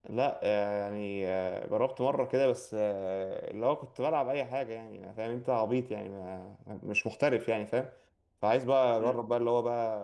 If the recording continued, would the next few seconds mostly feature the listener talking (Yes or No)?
No